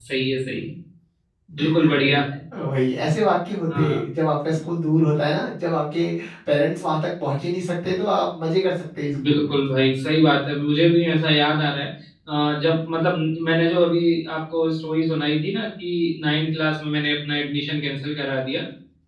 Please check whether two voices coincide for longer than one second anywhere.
No

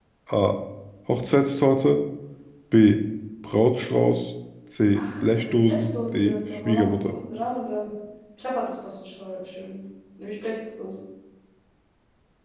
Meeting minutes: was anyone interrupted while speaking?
Yes, from 5.0 s

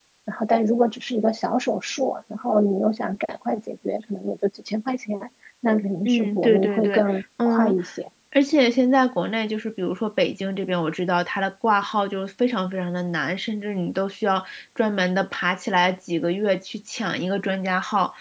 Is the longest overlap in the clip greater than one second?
Yes, from 6.0 s

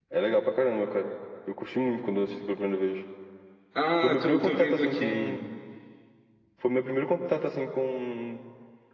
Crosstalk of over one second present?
Yes, from 4.0 s

